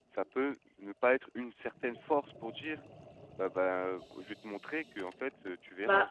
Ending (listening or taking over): taking over